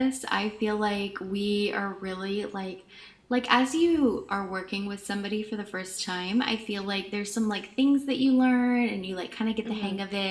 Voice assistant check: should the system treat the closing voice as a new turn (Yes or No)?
No